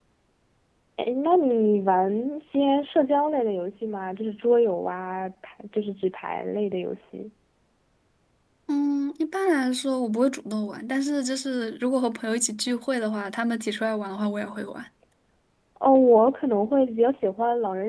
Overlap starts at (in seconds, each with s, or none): none